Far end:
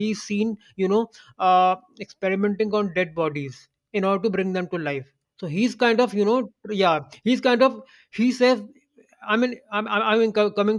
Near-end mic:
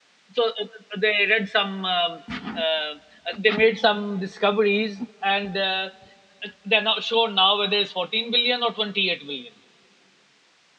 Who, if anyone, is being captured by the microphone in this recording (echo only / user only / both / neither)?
user only